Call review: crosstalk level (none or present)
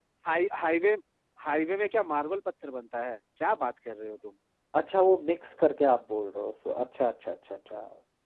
none